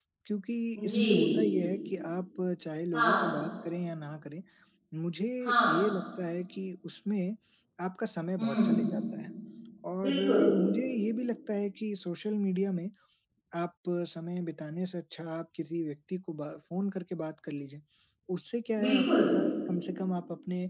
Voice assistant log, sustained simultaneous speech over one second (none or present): none